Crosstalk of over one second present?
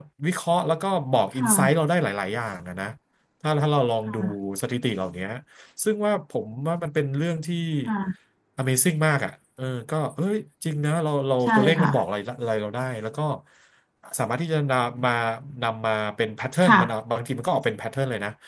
No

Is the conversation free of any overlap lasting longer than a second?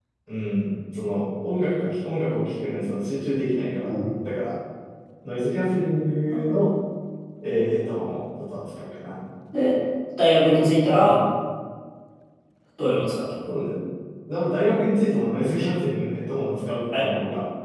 Yes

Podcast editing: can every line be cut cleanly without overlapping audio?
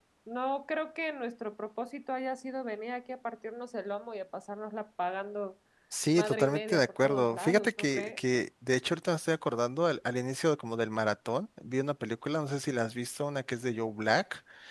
No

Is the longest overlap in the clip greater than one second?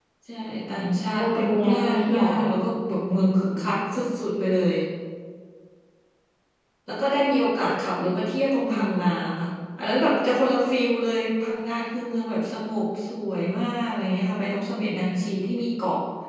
Yes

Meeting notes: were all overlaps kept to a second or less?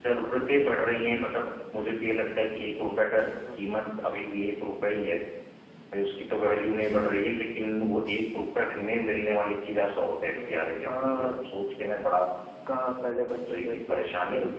No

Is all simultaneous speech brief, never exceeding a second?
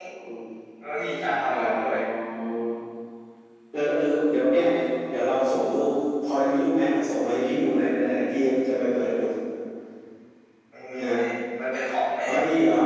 Yes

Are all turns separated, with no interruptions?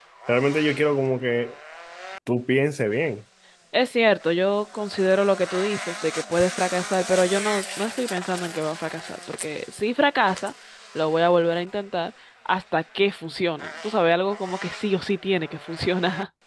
Yes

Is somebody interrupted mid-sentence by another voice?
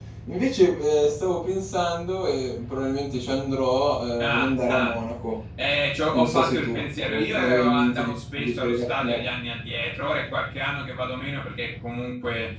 Yes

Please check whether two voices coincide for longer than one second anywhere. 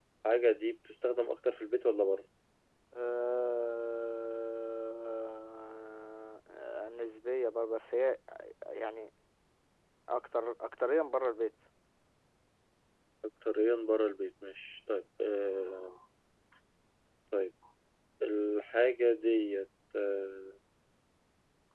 No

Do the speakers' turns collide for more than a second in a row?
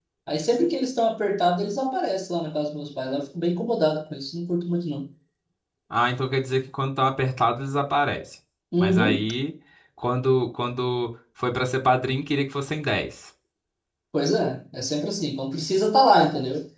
No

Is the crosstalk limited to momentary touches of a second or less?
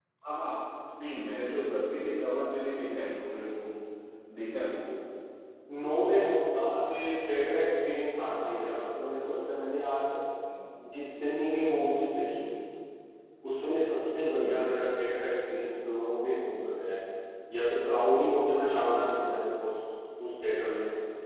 Yes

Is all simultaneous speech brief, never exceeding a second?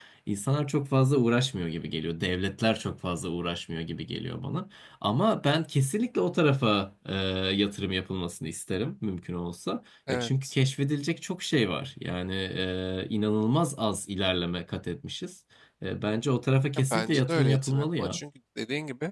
No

